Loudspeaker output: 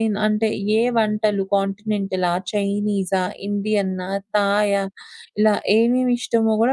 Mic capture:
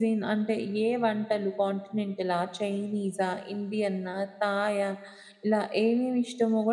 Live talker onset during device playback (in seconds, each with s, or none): none